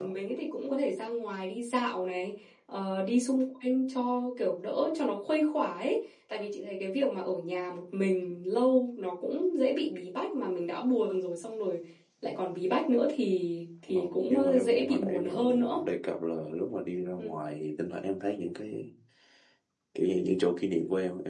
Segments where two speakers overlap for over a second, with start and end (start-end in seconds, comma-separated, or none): 13.9-15.8